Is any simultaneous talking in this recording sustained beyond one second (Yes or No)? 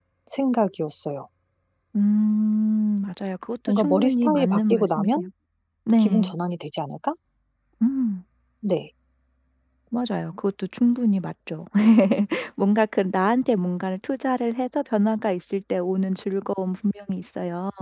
Yes